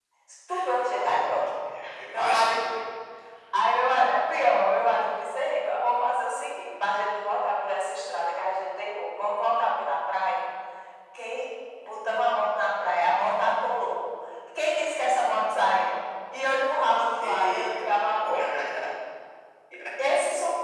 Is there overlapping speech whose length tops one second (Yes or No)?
Yes